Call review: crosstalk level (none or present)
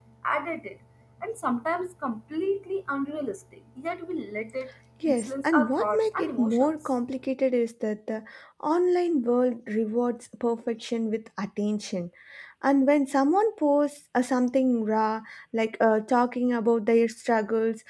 present